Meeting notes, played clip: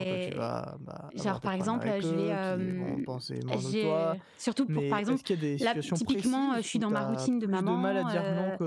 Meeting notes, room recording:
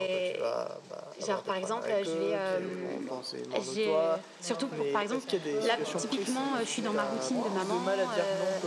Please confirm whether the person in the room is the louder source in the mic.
No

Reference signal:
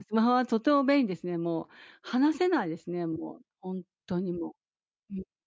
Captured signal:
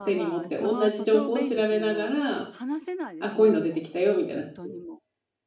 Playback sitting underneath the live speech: Yes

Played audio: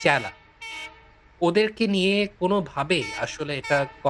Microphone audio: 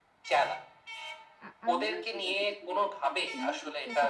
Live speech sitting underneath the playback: Yes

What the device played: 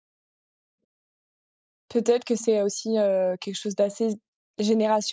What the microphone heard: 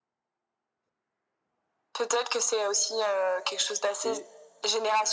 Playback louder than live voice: Yes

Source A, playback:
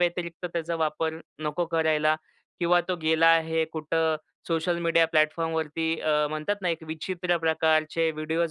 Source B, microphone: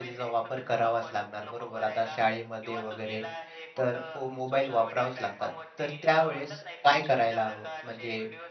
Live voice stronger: Yes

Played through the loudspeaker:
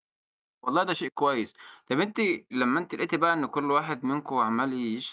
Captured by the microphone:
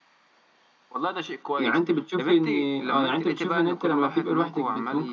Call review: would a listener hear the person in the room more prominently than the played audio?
Yes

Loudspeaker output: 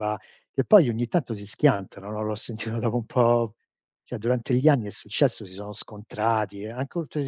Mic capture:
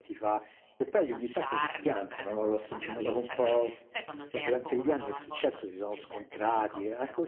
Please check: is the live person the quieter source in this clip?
Yes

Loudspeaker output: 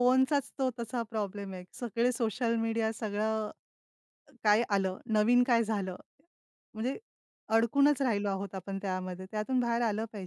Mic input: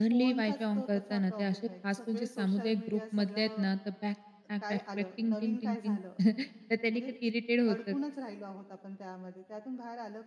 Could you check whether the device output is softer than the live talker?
Yes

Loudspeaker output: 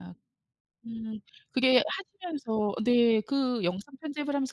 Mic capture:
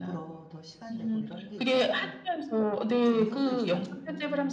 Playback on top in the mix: Yes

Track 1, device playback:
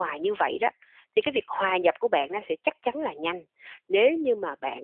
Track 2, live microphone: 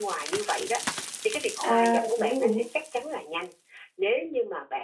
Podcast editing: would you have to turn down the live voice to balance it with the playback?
Yes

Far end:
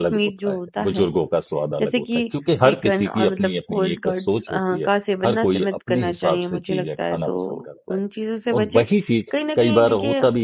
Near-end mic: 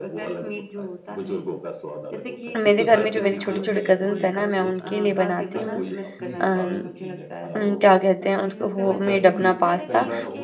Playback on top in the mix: No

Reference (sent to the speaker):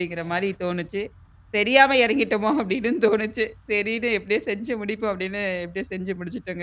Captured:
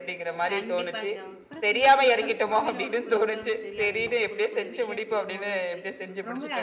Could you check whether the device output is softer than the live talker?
No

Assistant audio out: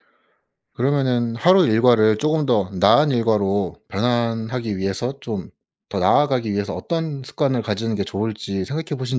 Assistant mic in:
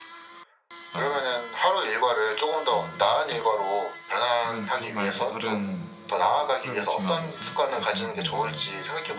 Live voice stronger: No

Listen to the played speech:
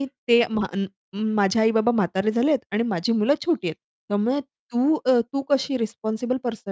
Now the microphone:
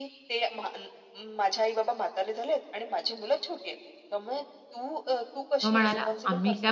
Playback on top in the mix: No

